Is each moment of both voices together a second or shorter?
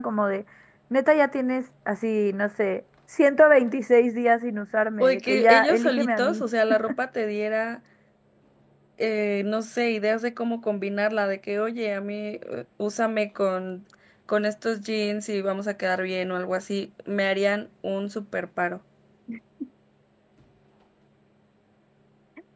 No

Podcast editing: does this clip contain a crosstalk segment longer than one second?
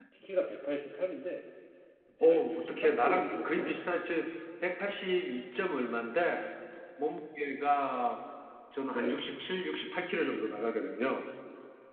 Yes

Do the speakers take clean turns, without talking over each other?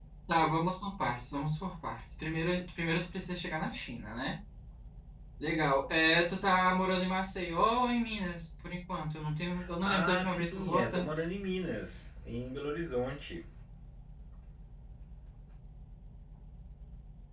No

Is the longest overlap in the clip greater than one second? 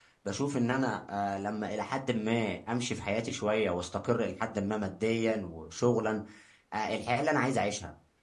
No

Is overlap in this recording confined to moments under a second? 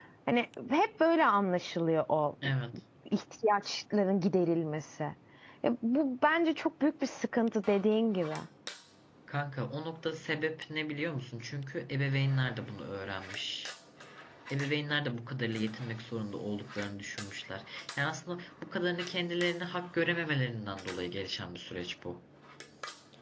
Yes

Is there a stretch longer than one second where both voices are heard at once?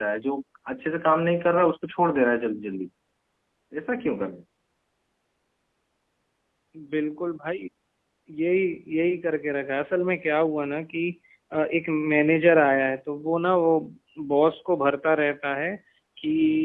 No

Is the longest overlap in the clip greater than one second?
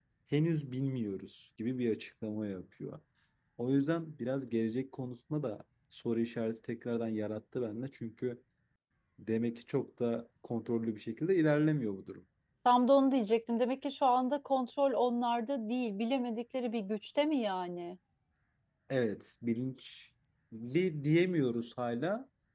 No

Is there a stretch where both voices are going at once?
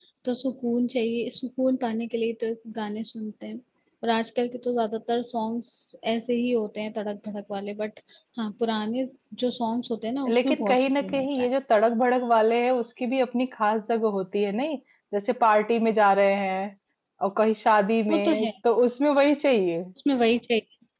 Yes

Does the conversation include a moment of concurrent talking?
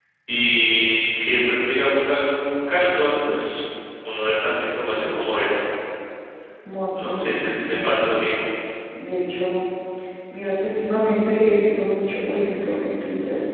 Yes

